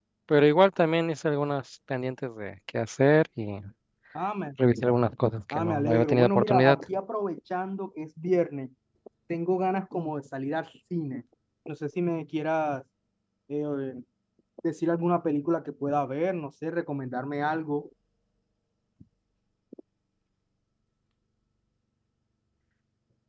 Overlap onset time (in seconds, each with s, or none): 5.5 s